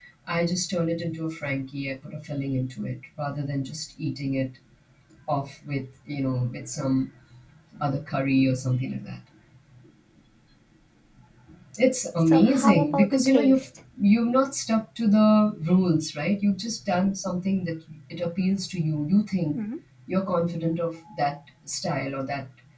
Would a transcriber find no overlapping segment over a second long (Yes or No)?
No